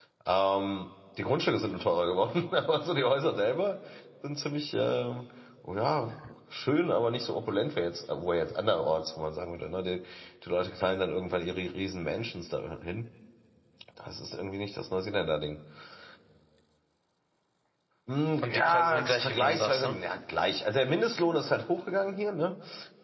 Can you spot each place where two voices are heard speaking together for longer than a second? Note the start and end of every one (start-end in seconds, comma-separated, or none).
18.4-20.0